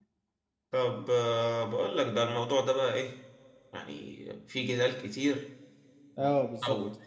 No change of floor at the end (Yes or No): Yes